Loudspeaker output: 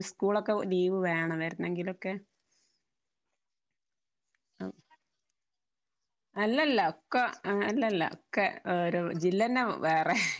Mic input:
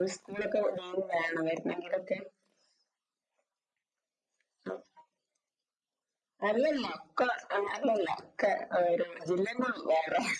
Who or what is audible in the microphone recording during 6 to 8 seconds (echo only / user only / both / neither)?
echo only